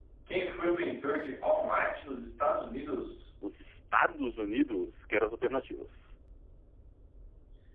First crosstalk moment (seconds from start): none

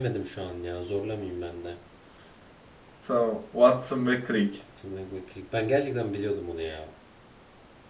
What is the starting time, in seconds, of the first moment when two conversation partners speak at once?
none

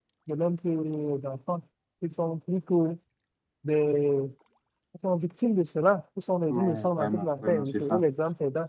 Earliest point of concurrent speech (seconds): 7 s

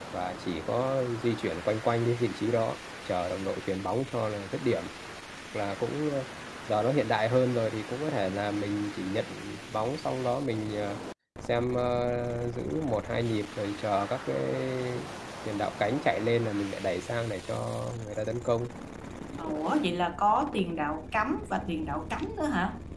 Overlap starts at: none

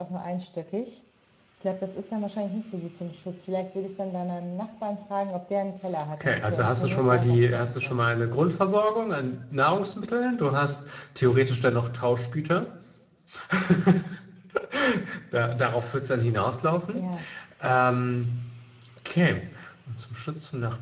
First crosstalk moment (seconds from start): 6 s

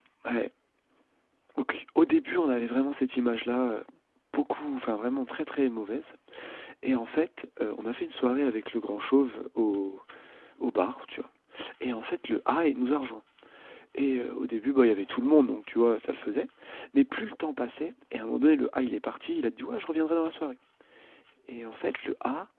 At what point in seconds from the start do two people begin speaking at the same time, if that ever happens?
none

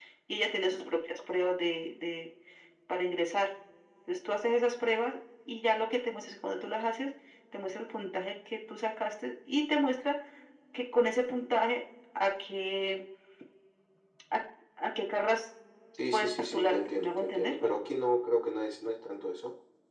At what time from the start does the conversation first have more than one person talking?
16 s

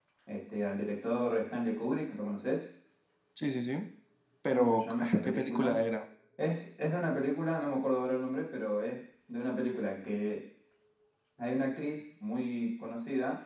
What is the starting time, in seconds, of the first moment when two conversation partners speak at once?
5 s

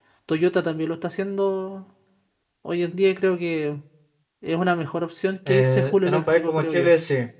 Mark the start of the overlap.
5 s

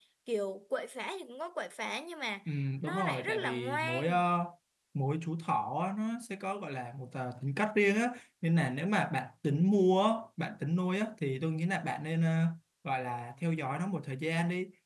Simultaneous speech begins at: 3 s

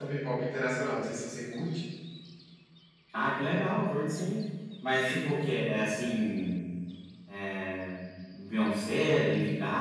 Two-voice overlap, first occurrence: none

